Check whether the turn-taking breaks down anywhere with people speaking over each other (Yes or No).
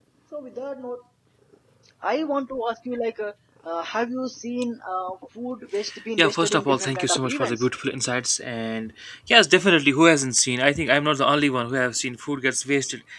Yes